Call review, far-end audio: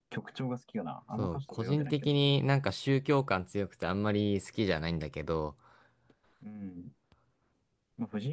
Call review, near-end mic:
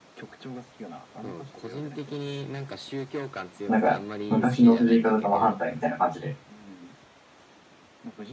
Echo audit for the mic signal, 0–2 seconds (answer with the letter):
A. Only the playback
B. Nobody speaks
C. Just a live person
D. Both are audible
A